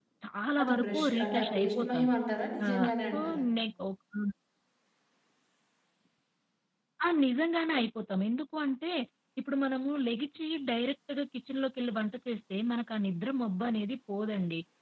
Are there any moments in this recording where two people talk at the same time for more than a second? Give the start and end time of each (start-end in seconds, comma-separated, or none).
0.6-2.1